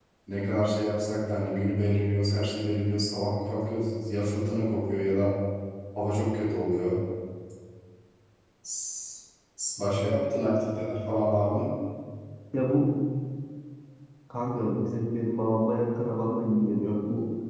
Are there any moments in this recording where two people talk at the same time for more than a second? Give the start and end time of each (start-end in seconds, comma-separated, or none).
none